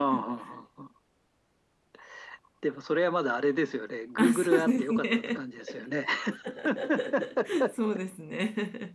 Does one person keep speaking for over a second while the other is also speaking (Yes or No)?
Yes